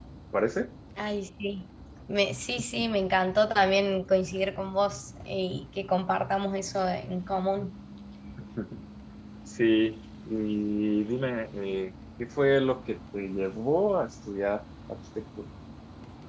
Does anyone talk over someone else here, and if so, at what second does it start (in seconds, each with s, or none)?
none